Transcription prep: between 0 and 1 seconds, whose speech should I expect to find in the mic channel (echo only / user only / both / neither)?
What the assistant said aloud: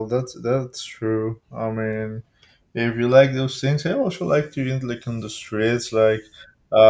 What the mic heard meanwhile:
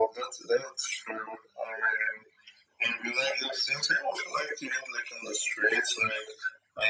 echo only